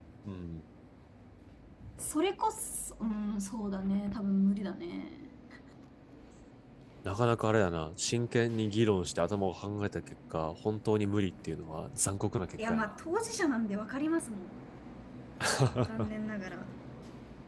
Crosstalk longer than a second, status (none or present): none